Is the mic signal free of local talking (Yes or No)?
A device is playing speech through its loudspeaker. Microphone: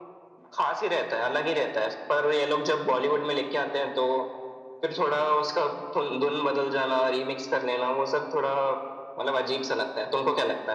Yes